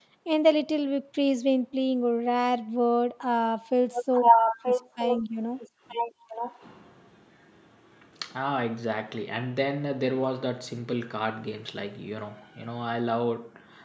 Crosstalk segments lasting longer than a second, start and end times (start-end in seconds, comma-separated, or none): none